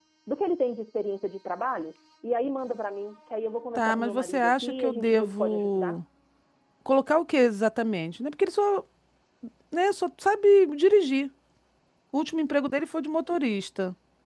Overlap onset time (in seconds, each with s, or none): 3.8 s